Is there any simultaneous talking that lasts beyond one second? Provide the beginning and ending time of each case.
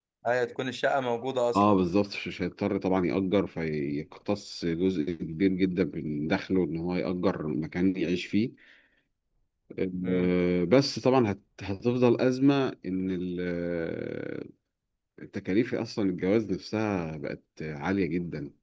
none

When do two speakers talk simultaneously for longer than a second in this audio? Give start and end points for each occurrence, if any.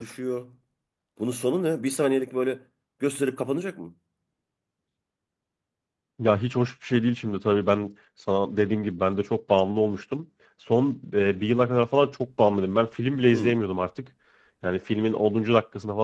none

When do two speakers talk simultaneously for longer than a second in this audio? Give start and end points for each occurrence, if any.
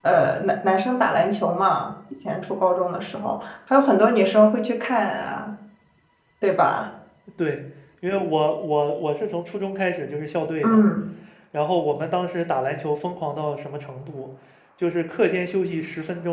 none

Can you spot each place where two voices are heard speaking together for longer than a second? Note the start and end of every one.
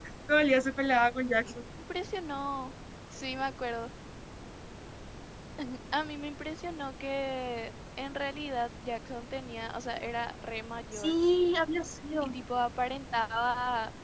none

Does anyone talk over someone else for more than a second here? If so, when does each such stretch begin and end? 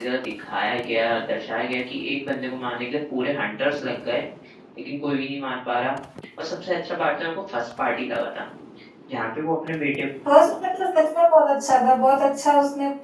none

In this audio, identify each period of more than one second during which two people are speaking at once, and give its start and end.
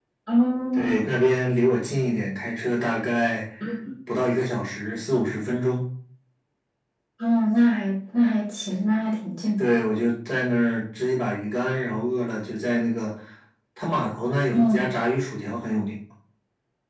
none

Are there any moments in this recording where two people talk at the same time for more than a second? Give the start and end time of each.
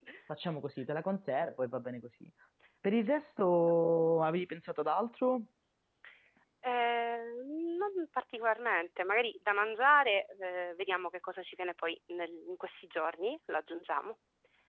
none

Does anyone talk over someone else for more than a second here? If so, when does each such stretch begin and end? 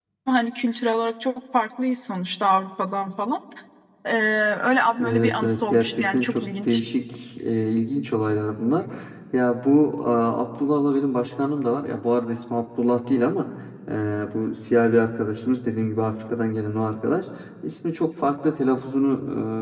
5.0-6.8

